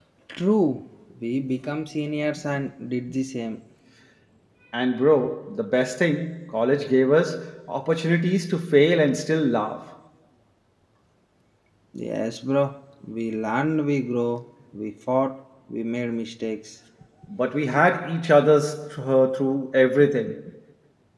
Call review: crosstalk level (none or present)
none